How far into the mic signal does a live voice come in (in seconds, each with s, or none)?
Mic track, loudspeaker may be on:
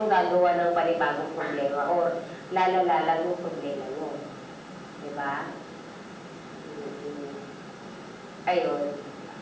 none